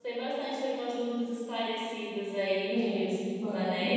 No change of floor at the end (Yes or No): No